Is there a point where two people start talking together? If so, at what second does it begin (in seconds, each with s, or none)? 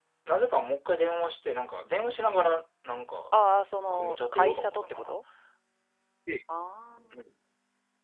3.9 s